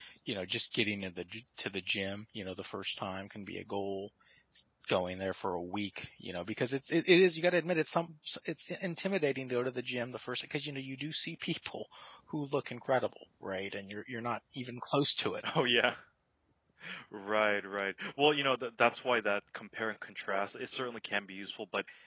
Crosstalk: none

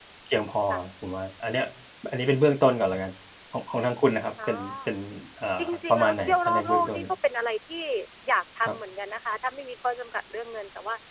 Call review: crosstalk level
present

